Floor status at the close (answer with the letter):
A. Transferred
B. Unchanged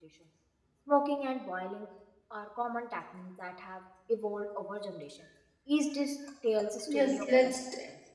A